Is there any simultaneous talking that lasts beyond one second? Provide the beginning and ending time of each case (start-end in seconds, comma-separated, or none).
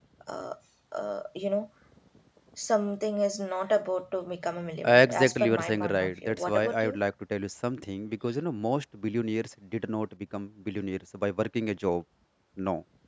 4.8-7.0